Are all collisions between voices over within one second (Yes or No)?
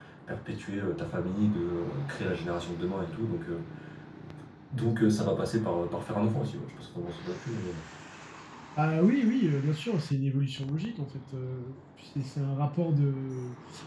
Yes